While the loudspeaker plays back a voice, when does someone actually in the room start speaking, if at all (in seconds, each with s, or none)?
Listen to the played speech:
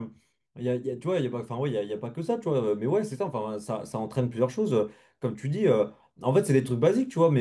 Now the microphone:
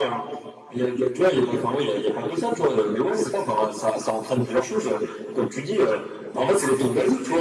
none